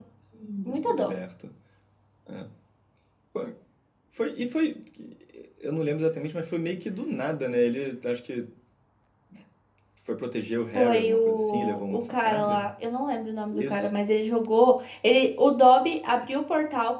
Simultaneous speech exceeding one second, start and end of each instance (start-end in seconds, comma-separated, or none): 10.8-12.7